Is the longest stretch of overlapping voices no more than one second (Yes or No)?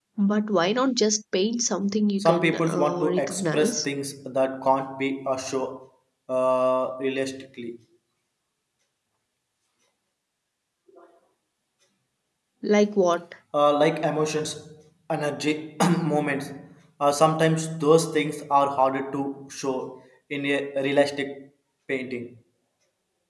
No